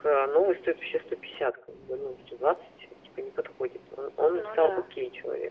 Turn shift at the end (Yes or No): No